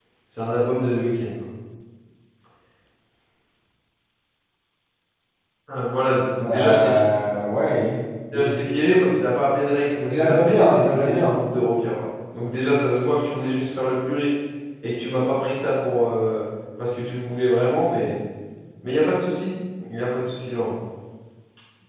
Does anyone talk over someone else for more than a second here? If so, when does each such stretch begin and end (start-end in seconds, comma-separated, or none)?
10.1-11.4